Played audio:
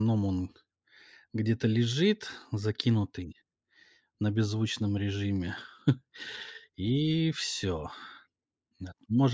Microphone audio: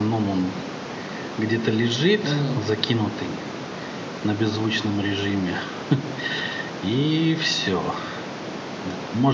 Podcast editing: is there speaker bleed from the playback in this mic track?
Yes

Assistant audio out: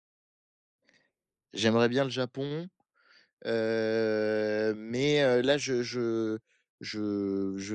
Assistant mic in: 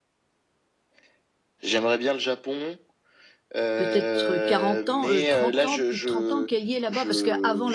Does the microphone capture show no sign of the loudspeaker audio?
No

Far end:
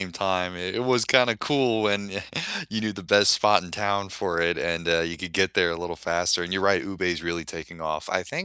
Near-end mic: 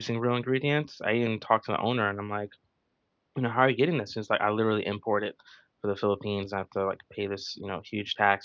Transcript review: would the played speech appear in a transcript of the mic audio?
No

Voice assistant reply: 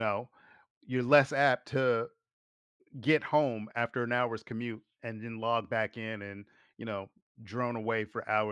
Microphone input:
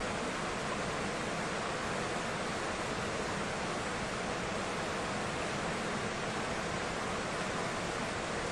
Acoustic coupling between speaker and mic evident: No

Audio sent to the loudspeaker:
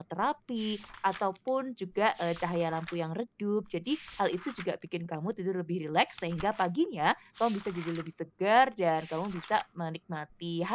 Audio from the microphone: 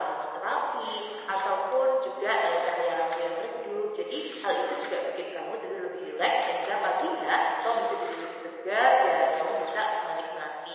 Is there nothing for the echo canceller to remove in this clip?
No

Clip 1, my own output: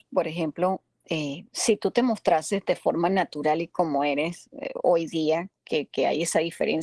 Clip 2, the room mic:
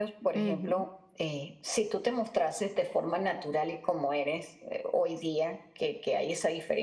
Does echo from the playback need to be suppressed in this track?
Yes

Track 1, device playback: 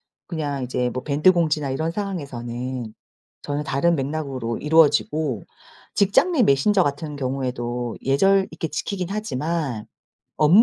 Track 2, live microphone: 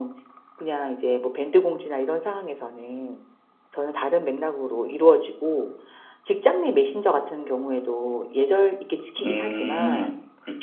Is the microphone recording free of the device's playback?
No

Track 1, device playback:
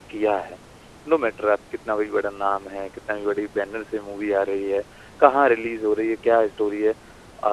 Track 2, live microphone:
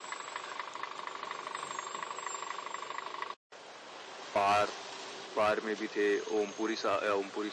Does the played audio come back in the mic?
No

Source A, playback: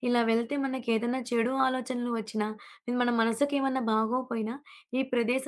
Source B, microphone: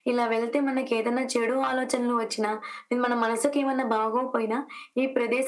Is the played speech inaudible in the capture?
No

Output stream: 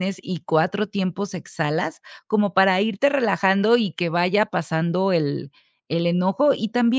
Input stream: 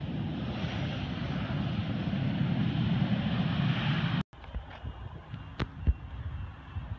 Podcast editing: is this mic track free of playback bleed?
Yes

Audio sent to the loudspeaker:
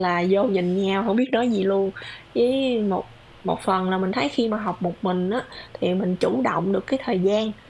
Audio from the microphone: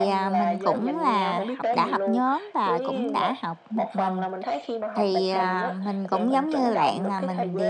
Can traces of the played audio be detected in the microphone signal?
Yes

